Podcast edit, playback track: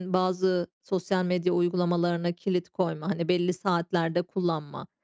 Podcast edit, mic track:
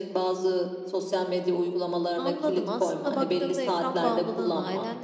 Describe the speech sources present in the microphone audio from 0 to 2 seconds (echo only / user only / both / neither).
echo only